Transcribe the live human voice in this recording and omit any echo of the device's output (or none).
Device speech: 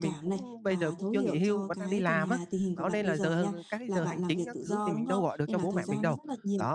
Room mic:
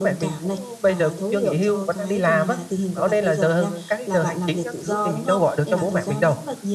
none